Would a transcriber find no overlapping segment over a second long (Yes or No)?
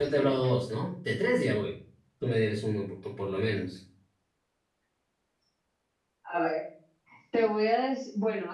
Yes